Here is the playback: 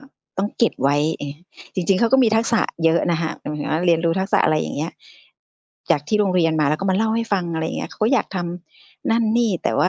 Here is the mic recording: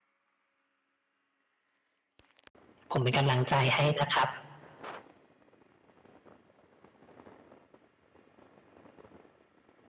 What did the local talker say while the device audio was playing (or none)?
ผมเป็นกำลังใจให้นะครับ